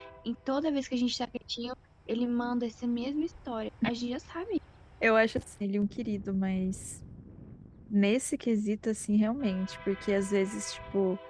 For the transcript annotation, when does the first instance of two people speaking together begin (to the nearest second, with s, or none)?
none